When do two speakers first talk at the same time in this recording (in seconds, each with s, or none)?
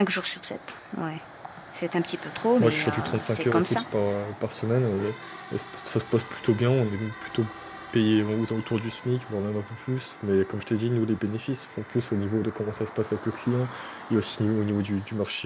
2.6 s